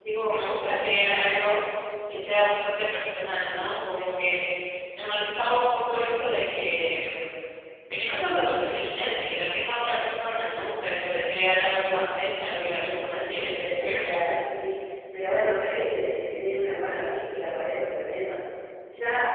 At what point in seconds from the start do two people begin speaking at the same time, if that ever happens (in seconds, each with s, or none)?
12.6 s